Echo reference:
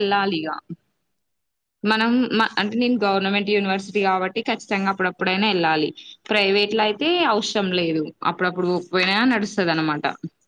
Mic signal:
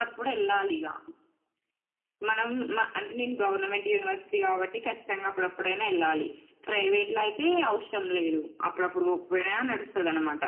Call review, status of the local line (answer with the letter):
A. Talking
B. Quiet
B